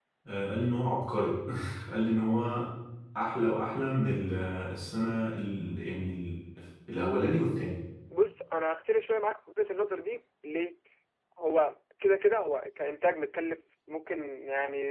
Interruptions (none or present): none